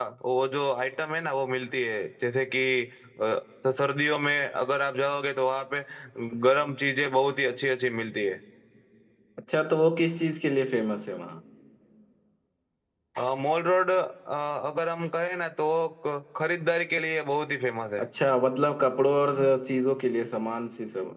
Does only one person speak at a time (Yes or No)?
Yes